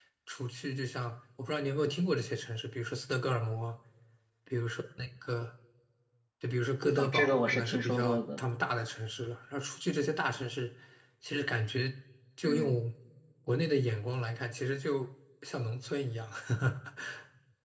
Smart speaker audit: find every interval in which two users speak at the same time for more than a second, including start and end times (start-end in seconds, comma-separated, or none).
7.0-8.4